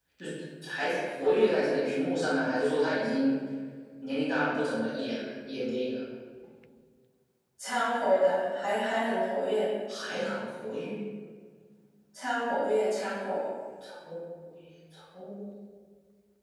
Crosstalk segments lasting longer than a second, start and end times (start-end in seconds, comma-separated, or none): none